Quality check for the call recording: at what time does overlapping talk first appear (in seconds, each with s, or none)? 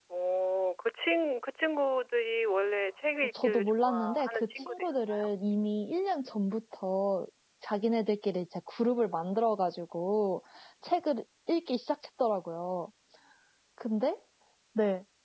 3.2 s